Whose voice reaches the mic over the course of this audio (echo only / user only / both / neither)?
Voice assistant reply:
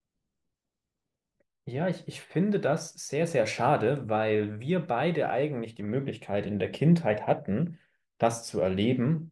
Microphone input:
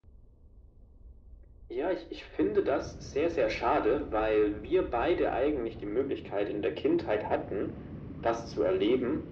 echo only